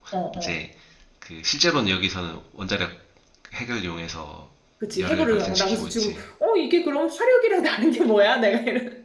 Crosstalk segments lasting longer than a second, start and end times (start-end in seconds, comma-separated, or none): 5.0-6.2